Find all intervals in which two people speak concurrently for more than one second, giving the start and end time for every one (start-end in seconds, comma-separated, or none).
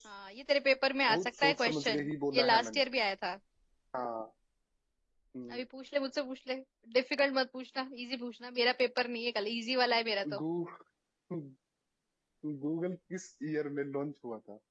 1.1-2.8